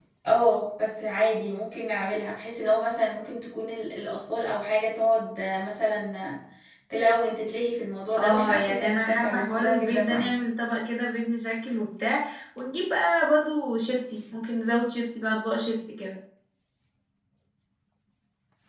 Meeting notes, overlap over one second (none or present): present